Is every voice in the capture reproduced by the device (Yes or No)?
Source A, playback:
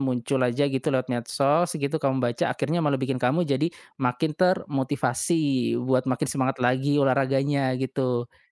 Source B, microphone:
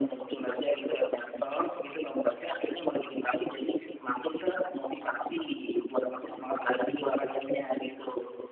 Yes